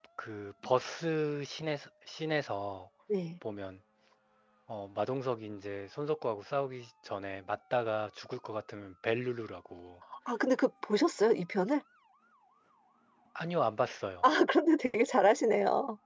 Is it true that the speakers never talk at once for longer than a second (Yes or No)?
Yes